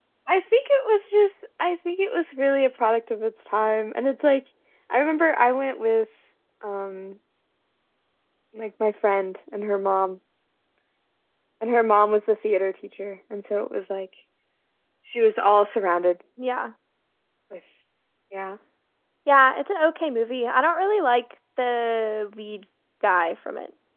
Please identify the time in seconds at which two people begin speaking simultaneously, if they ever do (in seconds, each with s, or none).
none